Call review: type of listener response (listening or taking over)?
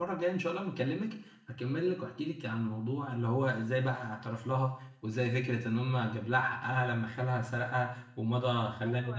taking over